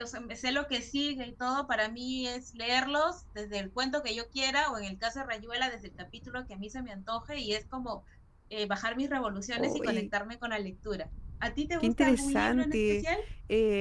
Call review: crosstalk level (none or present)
present